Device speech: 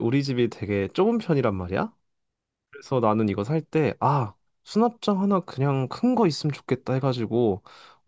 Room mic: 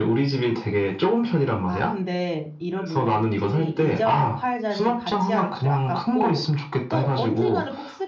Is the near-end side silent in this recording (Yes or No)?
No